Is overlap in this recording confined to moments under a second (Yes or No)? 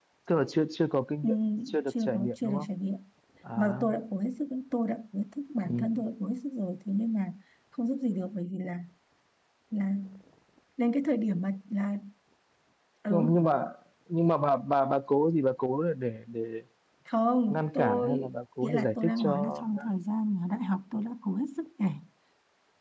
No